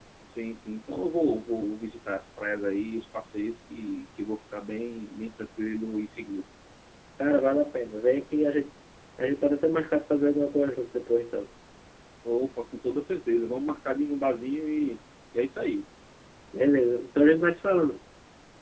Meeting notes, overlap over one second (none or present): none